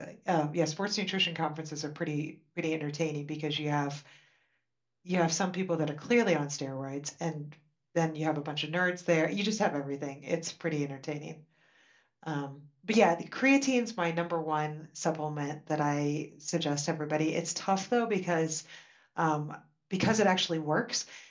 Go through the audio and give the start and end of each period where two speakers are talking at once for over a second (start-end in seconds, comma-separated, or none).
none